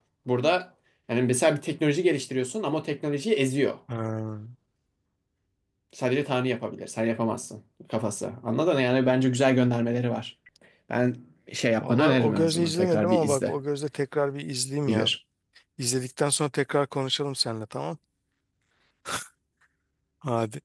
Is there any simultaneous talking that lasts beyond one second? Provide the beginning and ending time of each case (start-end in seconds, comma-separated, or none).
11.8-13.6